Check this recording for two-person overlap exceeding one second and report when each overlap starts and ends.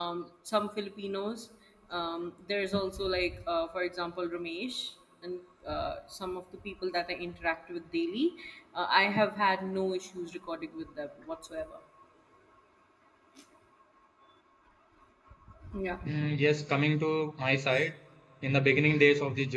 none

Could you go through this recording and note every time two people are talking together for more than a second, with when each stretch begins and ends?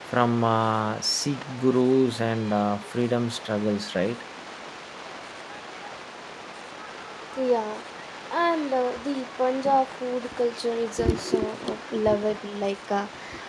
none

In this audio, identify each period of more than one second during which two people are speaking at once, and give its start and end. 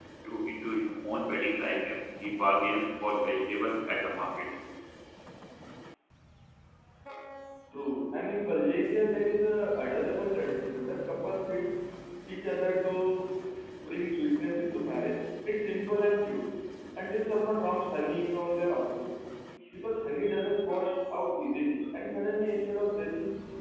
none

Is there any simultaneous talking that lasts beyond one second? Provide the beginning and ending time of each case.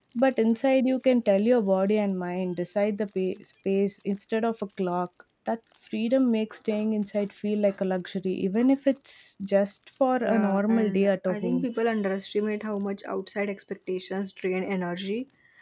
10.2-11.7

